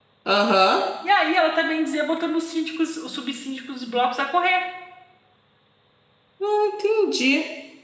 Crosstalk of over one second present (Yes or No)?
No